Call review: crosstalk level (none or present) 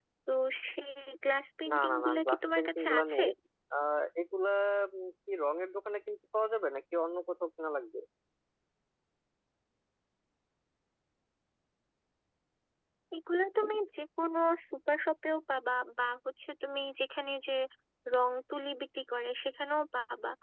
present